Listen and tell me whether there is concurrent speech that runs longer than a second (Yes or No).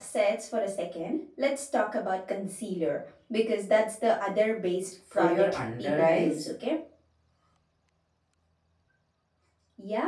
Yes